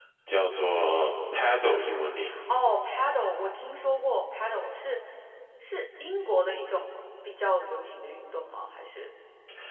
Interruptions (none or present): none